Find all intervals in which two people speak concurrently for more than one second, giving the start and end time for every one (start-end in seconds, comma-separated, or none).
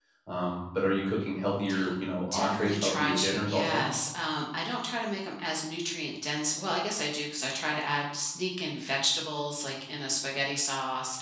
2.3-3.8